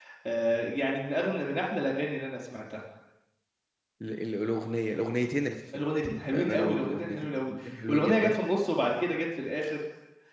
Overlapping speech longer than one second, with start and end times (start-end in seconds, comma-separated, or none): 6.3-8.4